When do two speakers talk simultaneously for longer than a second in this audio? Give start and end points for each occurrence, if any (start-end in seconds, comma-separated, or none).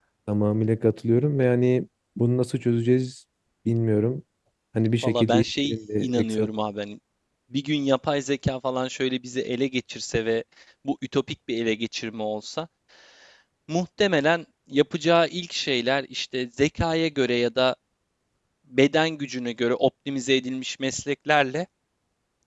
5.0-6.5